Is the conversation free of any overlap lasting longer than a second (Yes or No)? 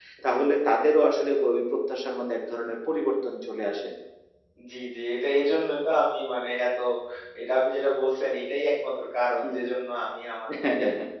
Yes